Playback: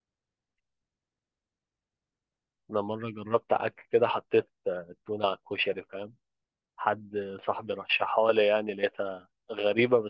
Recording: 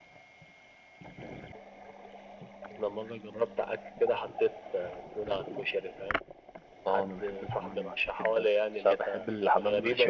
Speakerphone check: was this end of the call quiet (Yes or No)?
No